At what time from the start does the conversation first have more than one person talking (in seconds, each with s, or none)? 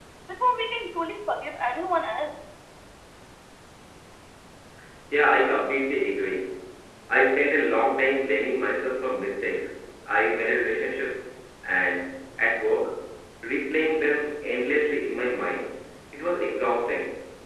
none